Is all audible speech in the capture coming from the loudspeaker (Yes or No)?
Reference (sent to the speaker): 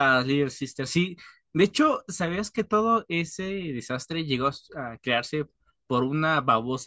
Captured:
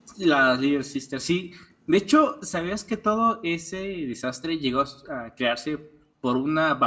Yes